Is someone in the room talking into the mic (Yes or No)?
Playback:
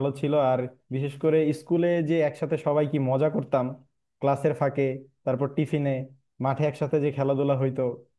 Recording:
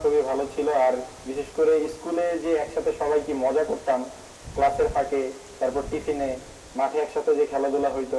No